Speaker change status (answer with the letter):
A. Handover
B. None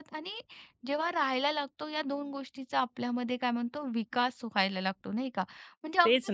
B